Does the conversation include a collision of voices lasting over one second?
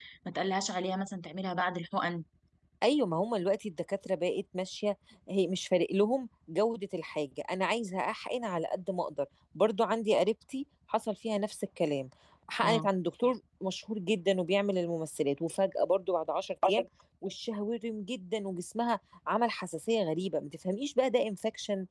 No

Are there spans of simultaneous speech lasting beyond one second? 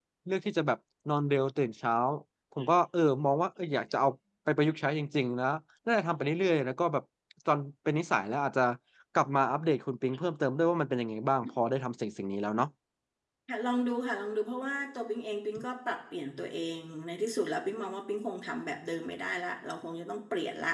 No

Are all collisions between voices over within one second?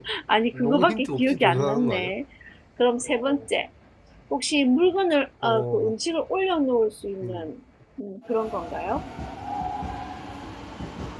No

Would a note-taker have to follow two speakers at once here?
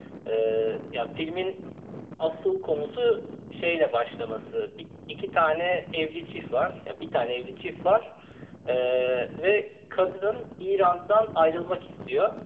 No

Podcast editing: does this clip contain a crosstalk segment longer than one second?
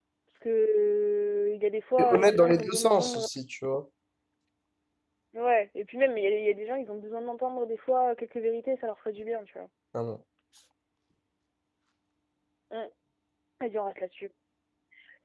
Yes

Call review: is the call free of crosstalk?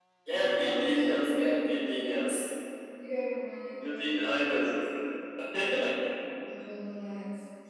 No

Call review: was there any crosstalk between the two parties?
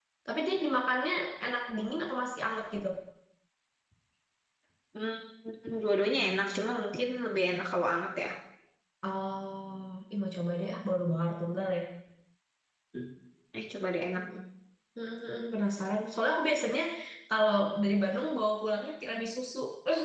No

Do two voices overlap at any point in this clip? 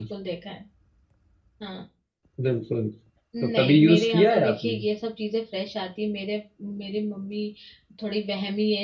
Yes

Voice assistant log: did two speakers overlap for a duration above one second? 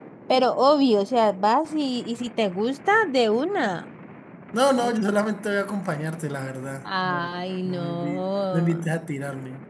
Yes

